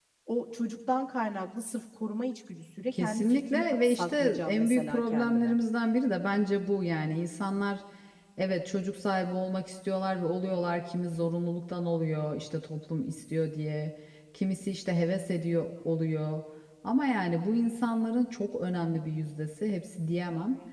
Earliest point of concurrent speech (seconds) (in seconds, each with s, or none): 2.9 s